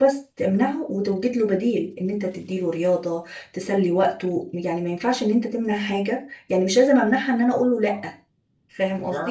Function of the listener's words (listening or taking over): taking over